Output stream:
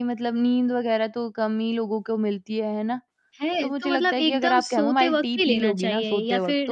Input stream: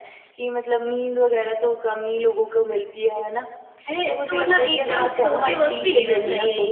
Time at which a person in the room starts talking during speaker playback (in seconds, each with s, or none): 4.5 s